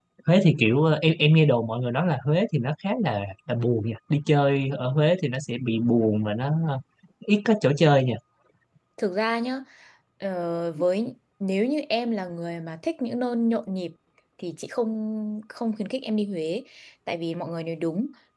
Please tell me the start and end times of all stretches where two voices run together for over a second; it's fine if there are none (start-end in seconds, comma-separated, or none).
none